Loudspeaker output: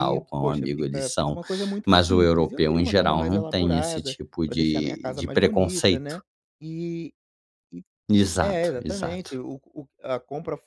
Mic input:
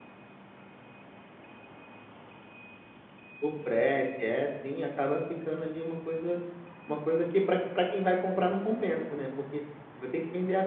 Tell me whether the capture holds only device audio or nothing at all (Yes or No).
No